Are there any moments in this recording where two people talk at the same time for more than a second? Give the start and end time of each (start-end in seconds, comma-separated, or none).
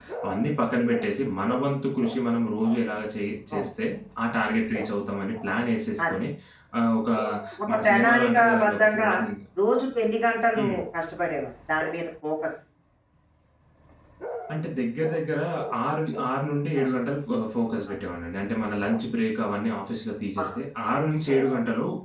7.7-9.1